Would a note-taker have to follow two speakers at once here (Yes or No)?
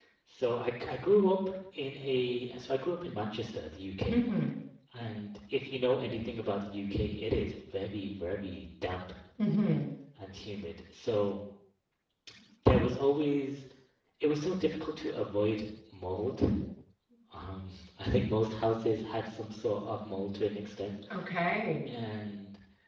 No